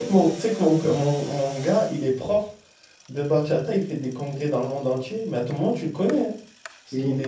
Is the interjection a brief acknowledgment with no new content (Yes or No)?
Yes